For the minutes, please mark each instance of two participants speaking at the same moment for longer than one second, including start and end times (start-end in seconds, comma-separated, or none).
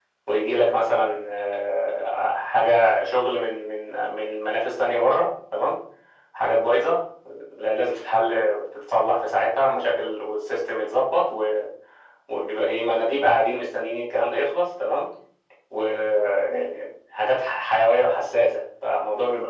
none